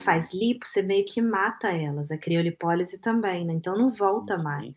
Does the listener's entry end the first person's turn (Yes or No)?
Yes